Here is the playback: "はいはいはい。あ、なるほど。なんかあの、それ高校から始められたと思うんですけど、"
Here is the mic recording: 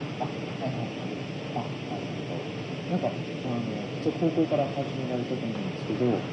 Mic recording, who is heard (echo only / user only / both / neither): echo only